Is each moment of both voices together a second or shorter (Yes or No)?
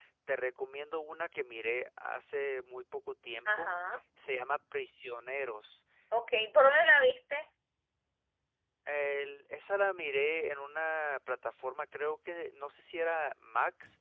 Yes